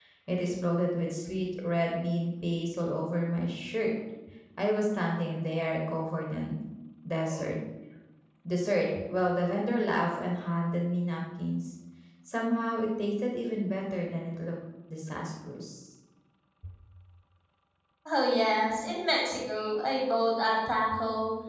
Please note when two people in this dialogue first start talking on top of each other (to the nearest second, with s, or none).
none